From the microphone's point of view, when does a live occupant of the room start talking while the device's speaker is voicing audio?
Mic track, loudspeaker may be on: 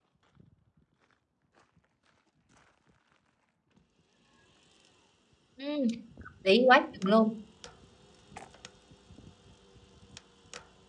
5.6 s

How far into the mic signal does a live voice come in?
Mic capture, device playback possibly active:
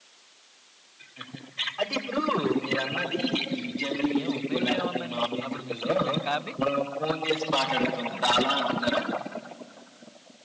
4.2 s

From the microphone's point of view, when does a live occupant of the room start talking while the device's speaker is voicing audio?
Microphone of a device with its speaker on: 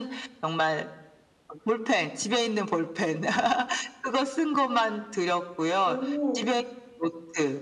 5.8 s

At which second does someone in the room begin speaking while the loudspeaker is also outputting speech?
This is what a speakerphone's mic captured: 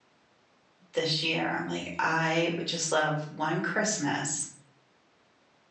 0.9 s

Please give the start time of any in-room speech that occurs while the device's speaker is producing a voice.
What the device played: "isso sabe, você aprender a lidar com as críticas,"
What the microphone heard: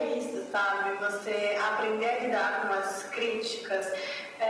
none

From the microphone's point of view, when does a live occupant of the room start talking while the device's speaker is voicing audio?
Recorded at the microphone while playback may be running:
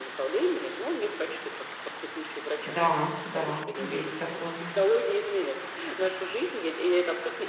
2.6 s

